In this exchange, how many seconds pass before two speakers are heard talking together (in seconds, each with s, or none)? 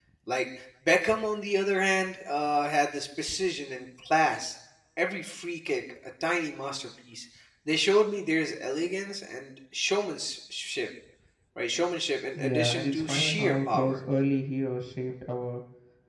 12.3 s